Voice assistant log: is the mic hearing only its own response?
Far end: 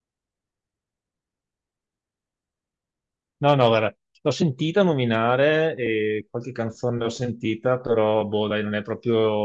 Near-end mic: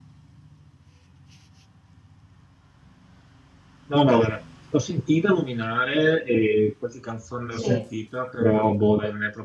No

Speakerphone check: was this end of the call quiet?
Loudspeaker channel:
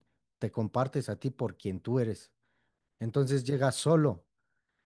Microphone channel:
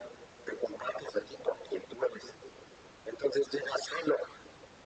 Yes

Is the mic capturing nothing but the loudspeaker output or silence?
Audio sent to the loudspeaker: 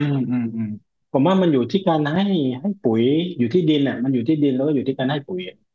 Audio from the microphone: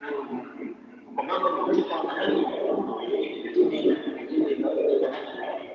Yes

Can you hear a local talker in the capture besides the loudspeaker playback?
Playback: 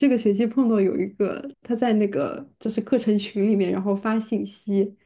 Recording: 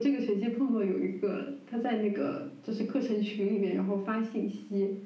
No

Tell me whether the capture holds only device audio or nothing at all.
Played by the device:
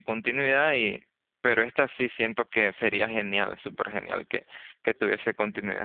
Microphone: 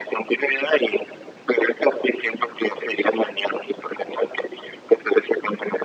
Yes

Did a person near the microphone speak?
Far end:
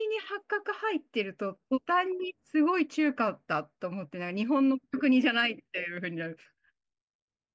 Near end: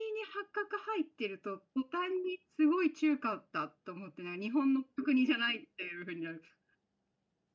No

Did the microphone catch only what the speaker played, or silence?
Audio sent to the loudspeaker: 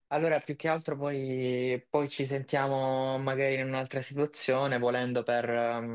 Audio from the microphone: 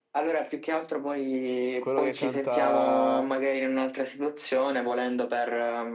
No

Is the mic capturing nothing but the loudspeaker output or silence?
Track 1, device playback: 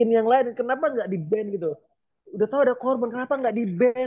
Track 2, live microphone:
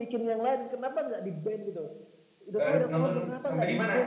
No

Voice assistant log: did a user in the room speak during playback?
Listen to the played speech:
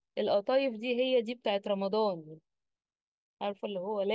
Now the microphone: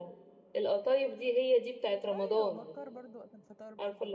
Yes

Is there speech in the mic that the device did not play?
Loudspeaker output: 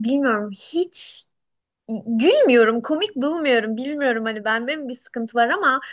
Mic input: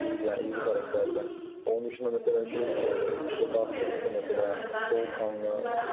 Yes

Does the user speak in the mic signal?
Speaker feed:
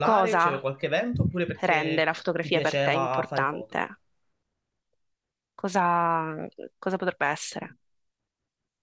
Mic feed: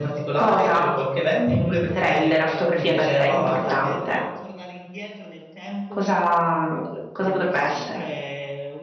Yes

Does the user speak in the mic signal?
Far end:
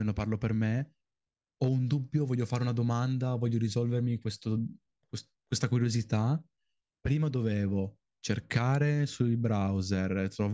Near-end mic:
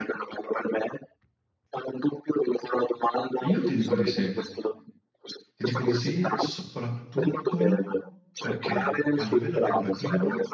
Yes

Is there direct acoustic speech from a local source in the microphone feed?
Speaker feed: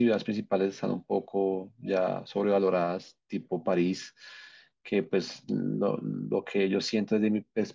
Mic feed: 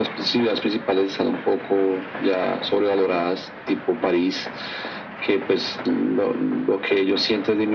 No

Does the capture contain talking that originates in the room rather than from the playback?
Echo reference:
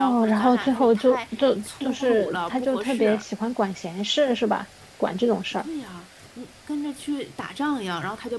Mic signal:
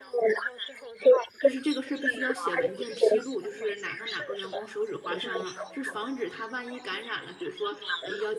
Yes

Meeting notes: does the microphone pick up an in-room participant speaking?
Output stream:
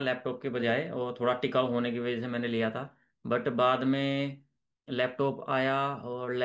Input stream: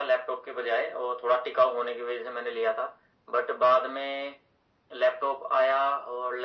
No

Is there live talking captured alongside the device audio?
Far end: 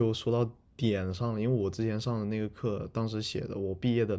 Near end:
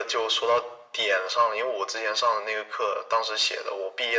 No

